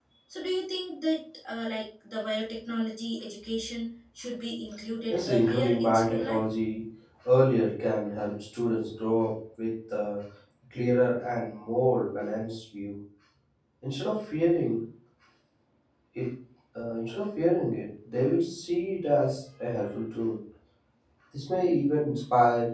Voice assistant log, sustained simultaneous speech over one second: present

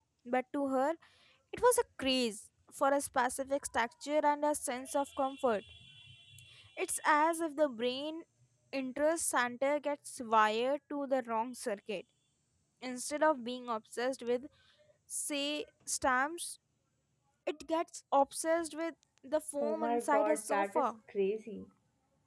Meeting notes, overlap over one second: present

